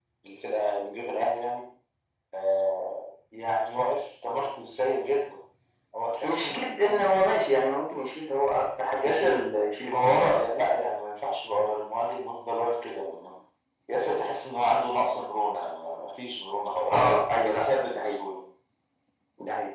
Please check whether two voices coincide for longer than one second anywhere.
Yes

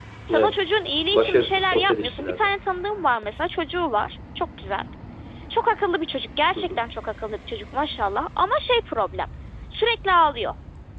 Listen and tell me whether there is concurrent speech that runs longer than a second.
Yes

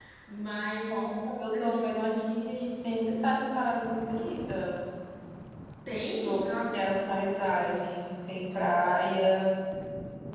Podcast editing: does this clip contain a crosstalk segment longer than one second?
Yes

